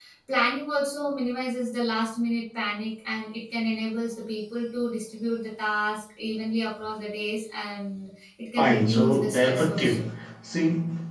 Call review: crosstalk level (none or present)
present